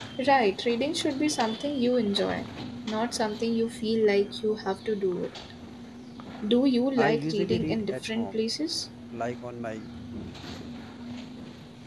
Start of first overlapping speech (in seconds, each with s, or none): 7.0 s